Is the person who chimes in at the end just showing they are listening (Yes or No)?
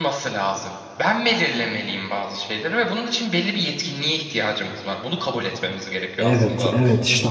No